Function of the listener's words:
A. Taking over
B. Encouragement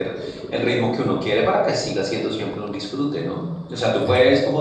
B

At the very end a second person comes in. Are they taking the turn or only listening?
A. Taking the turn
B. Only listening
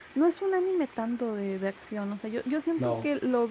B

